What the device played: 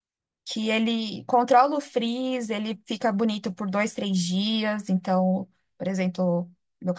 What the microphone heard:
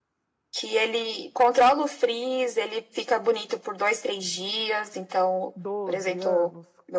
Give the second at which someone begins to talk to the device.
5.5 s

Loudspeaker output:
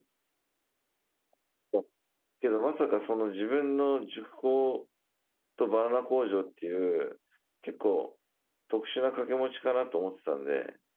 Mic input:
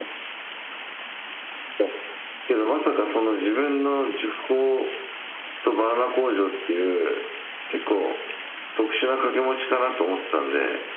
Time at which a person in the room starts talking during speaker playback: none

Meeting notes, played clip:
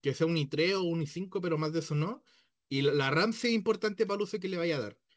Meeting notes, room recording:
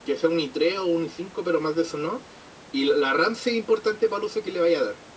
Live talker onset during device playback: none

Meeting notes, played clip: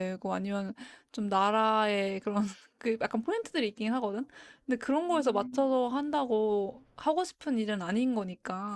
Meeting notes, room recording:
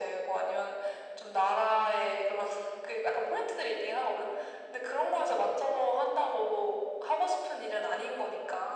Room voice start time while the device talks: none

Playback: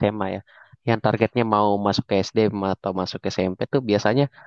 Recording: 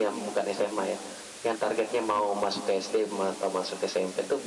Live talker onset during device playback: none

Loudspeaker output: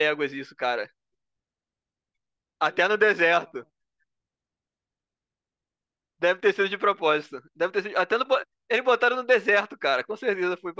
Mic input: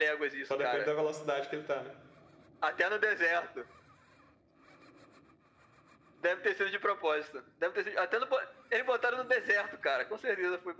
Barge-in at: 0.4 s

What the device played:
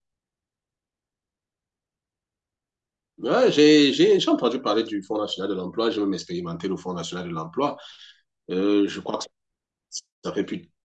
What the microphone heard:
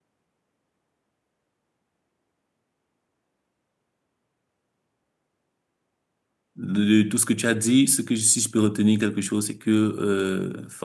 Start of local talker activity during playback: 6.6 s

